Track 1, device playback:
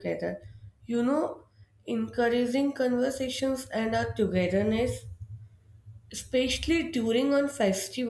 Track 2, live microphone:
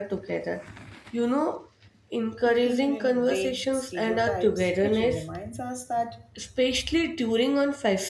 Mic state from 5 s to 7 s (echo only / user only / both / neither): both